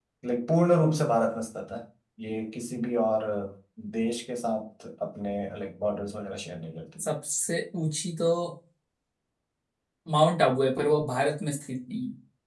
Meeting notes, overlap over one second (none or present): none